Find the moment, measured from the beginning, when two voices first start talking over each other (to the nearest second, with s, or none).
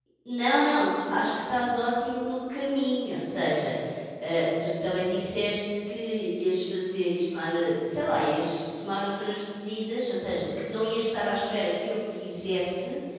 none